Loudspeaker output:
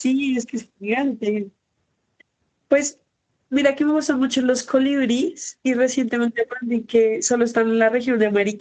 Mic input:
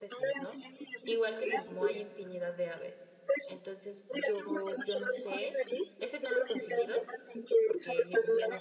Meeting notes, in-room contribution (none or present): present